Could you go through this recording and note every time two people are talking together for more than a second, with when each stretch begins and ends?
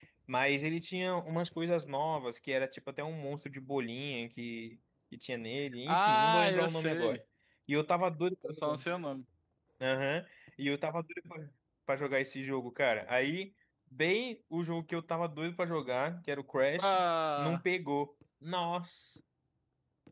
5.9-7.2

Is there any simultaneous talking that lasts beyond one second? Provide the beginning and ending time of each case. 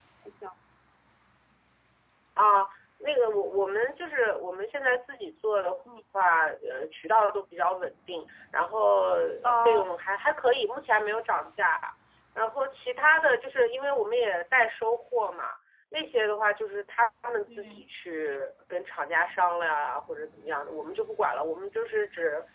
none

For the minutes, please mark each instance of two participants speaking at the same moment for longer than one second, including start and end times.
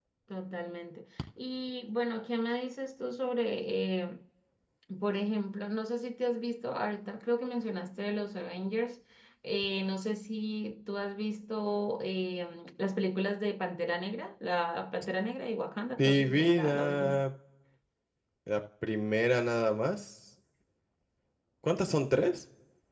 16.0-17.2

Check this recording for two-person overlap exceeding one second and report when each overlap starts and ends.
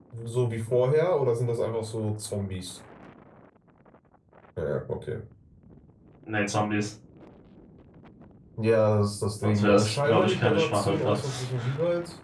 9.4-11.4

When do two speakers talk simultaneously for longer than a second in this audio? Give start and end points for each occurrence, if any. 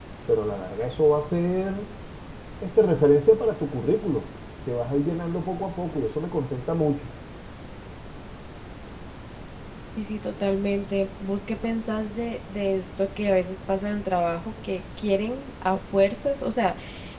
none

